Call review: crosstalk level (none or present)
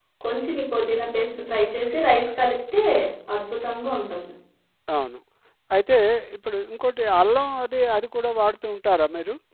none